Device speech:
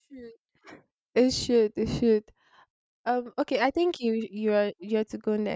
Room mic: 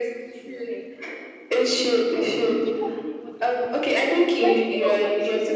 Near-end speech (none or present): present